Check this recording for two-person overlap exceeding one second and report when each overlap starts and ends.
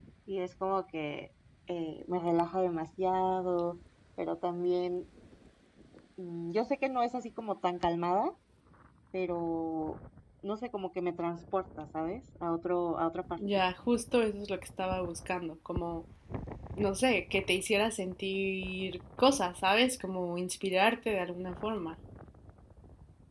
none

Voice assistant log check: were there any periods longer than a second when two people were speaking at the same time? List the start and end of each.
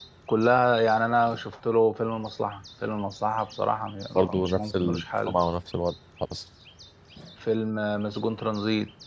4.2-5.4

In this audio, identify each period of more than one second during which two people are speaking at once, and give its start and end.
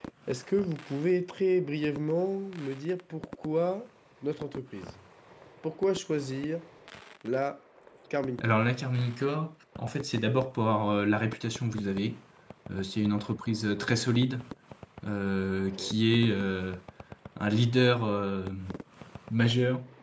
none

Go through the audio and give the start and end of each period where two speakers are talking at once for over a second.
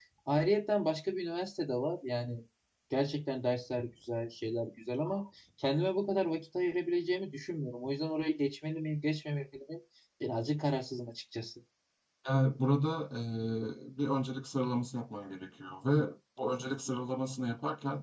none

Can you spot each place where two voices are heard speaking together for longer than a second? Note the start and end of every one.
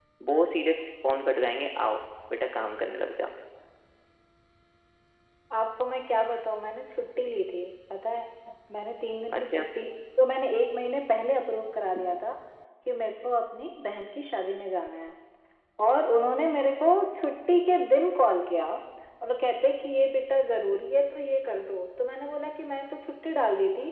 none

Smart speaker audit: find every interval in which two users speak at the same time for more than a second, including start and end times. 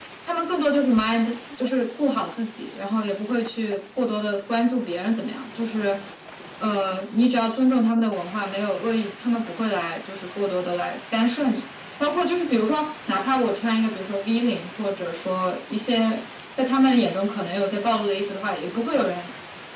none

